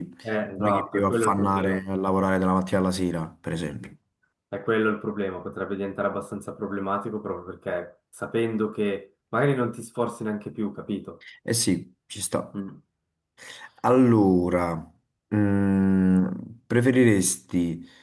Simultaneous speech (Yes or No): Yes